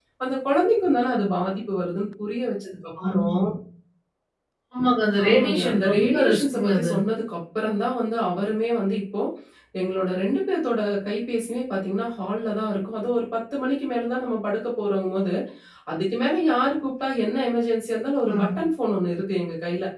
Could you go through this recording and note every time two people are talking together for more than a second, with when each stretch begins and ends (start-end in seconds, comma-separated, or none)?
5.3-6.9